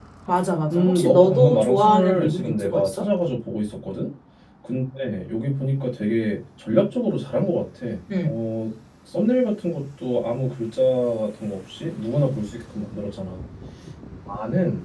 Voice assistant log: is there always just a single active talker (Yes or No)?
No